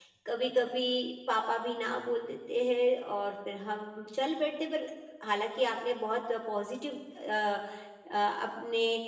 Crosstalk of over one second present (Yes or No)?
No